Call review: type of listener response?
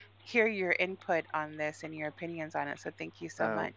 taking over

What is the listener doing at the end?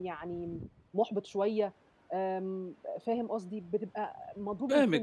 taking over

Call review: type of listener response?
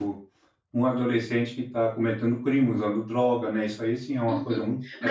taking over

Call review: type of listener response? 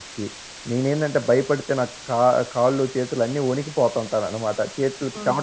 taking over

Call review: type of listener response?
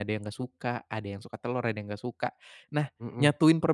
listening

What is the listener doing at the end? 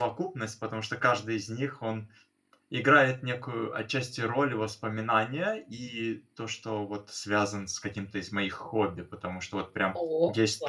listening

